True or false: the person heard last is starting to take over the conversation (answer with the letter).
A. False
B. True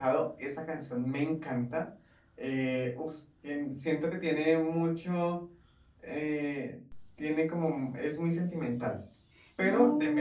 A